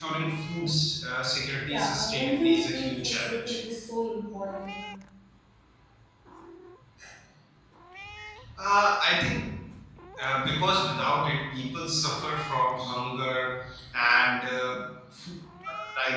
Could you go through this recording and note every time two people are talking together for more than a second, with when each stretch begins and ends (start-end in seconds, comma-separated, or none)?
1.7-3.6